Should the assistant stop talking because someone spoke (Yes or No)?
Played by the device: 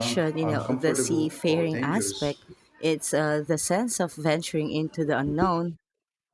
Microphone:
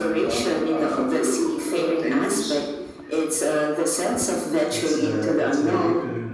Yes